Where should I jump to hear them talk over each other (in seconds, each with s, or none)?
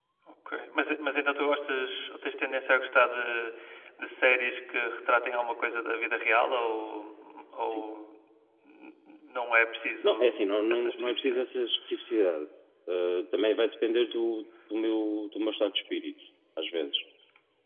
10.0 s